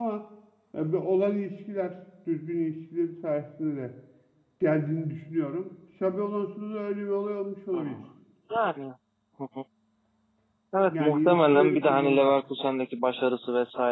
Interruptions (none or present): present